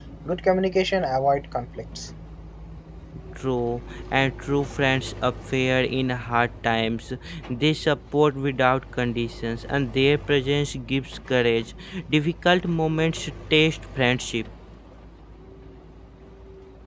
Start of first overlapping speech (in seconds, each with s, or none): none